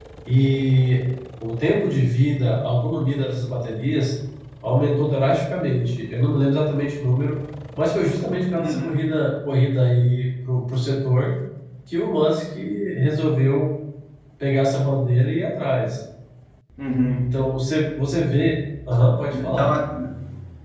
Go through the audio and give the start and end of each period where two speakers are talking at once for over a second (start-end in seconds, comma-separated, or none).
none